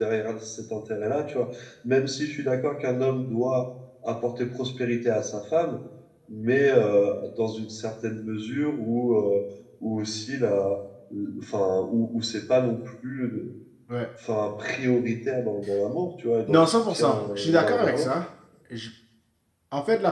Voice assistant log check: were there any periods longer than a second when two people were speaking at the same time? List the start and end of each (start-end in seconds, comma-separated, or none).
16.5-18.1